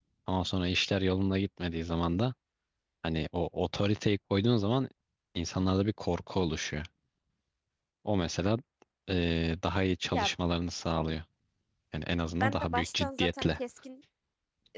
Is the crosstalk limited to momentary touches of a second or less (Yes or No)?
No